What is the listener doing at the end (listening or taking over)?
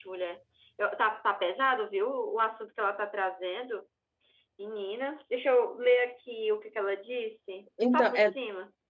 taking over